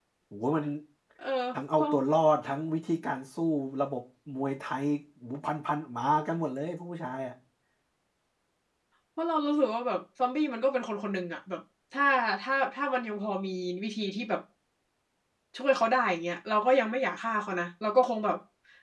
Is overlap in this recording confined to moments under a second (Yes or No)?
Yes